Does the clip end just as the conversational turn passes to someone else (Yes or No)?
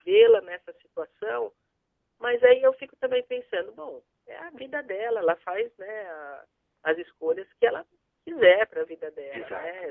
No